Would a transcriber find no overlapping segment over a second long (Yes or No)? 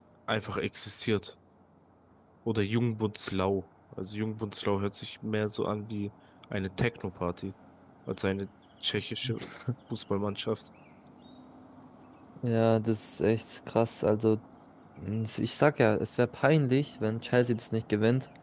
Yes